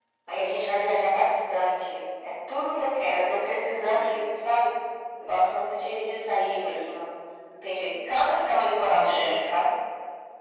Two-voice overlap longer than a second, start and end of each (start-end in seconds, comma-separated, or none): none